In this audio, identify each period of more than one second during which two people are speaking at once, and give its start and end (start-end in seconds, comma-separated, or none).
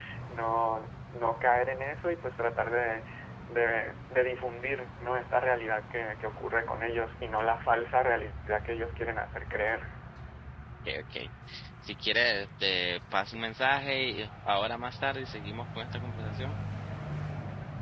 none